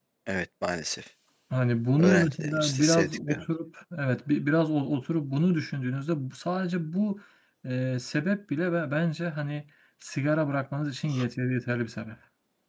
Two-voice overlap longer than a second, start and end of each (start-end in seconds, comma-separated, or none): 2.0-3.4